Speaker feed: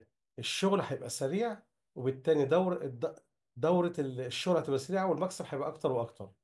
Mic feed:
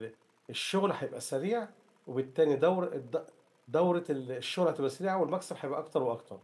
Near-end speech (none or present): none